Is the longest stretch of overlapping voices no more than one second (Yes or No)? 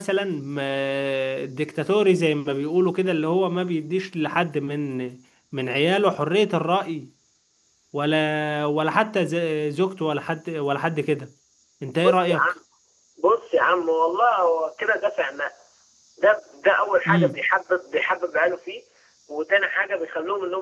Yes